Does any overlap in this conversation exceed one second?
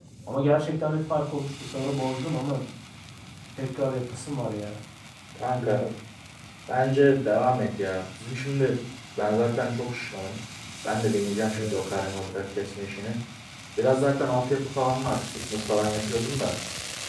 No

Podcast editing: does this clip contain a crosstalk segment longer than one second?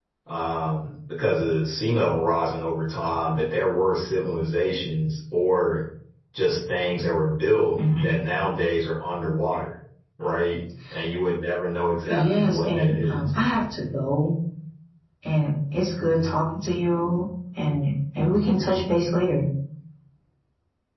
Yes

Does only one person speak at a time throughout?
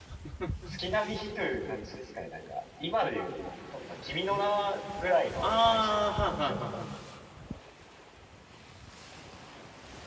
No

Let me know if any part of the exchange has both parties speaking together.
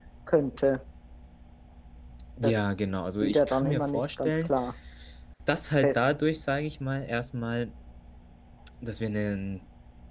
Yes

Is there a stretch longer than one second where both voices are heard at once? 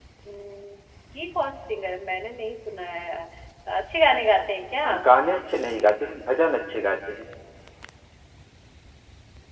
No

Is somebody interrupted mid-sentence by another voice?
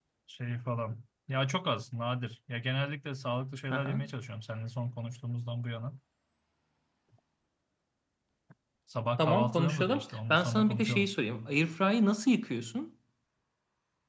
Yes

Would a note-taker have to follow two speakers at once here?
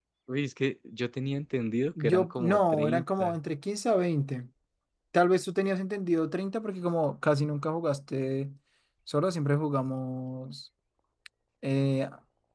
Yes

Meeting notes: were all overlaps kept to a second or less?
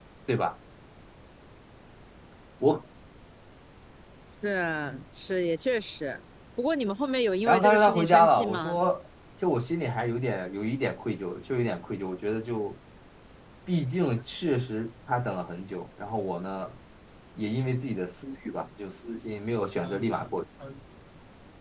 No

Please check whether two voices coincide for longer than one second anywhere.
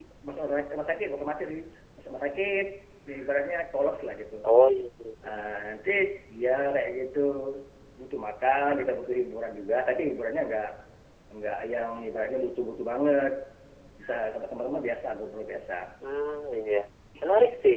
No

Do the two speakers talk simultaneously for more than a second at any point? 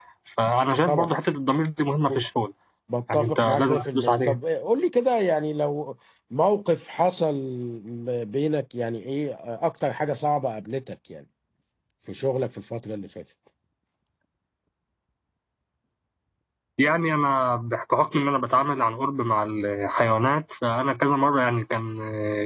Yes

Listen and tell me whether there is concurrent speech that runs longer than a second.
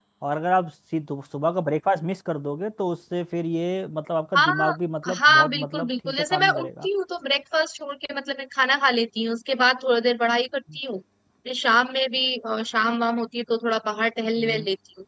Yes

